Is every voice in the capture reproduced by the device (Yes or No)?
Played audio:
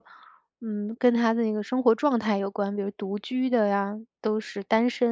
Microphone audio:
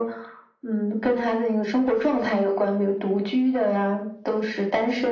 Yes